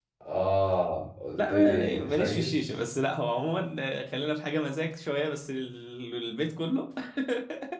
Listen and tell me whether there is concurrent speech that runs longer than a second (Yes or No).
Yes